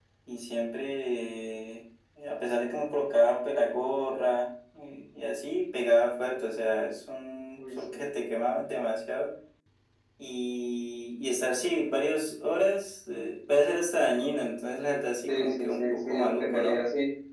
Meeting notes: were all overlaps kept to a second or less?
No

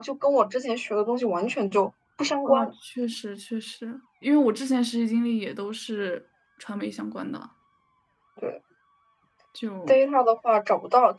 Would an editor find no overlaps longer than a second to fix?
Yes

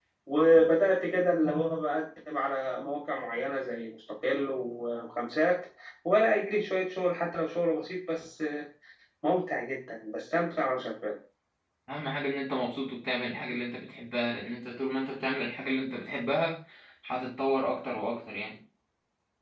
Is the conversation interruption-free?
Yes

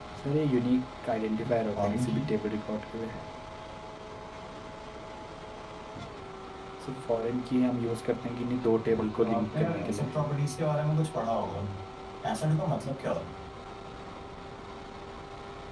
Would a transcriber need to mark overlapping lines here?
Yes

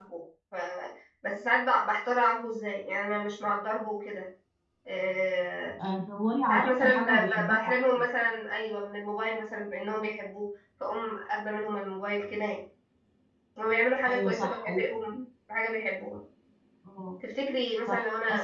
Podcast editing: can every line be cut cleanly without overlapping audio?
No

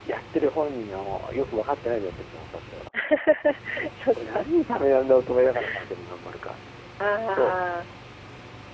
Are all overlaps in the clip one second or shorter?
Yes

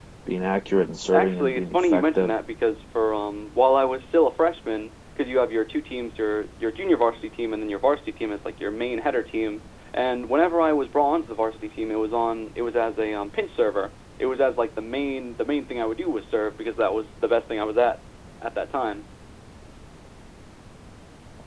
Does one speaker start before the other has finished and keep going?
Yes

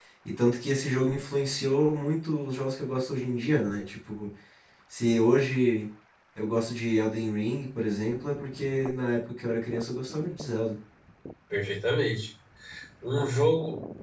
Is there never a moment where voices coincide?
Yes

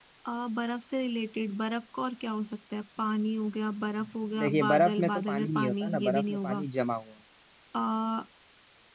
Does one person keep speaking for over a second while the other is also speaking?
Yes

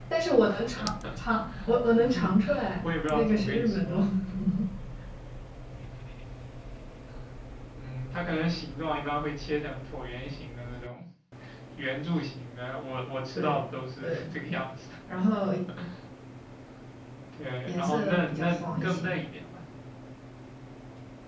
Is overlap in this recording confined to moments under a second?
No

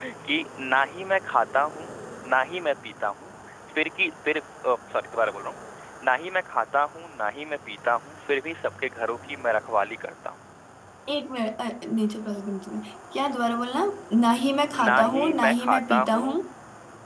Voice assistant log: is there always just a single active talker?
No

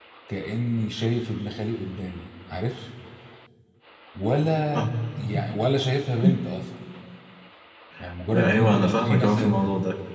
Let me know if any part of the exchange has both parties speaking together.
Yes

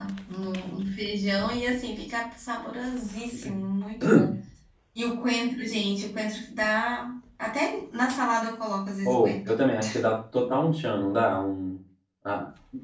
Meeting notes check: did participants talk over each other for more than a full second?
No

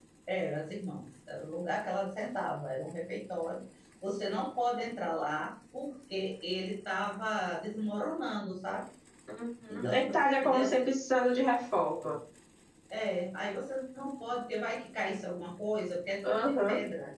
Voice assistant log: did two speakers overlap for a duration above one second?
Yes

